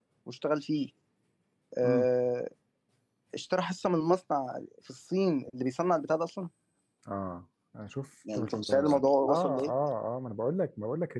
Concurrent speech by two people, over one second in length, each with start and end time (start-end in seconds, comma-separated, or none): 8.3-9.7